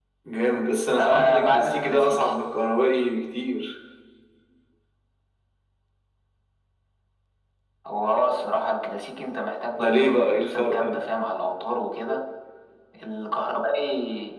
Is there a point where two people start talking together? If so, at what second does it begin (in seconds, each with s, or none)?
0.9 s